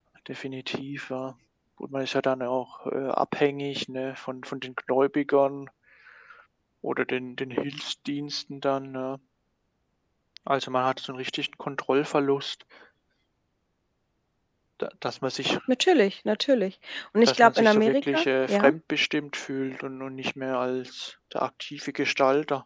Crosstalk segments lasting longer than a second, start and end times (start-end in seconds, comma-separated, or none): 17.2-18.7